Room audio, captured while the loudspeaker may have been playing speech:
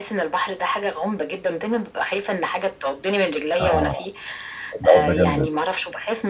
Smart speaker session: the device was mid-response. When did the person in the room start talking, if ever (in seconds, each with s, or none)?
3.6 s